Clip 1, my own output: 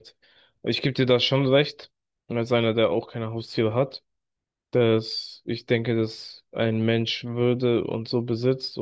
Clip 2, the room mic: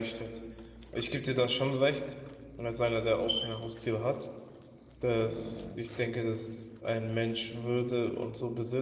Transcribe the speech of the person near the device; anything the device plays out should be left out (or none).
none